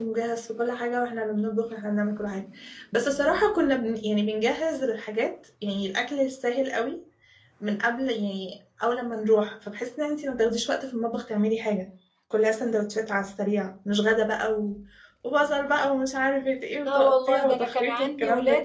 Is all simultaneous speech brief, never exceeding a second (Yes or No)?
No